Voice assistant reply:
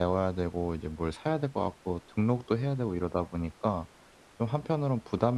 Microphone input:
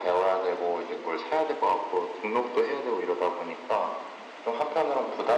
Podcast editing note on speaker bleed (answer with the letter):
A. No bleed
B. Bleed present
B